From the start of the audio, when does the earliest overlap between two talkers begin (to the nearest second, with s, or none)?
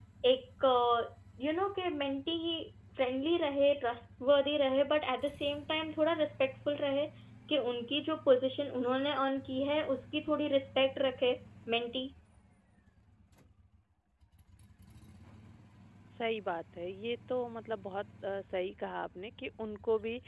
none